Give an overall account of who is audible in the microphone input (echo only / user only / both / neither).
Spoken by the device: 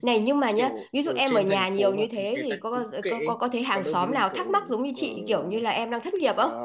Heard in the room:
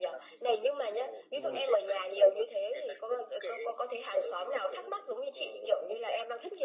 both